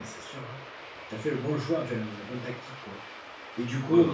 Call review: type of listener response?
listening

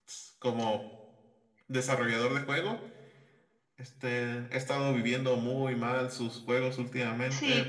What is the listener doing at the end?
taking over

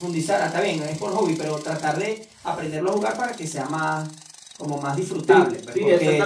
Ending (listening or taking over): taking over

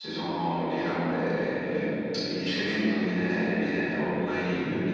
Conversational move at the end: listening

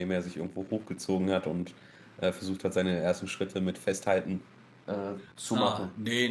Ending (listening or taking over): taking over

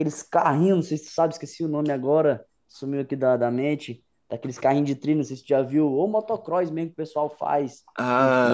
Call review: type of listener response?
taking over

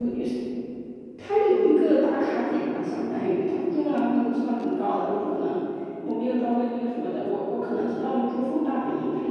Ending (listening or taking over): listening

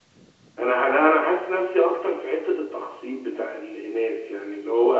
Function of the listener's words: listening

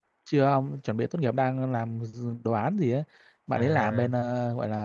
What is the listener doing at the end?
listening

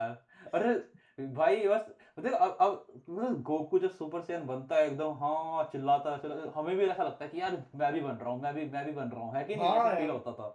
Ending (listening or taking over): taking over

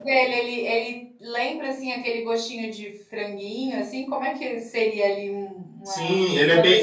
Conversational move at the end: taking over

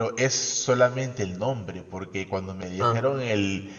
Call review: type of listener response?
listening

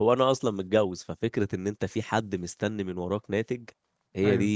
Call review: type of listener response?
listening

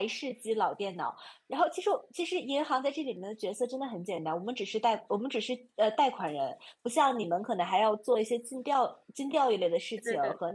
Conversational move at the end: listening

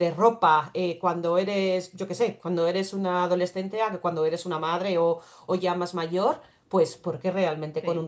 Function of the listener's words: listening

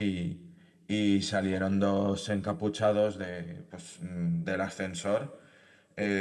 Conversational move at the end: taking over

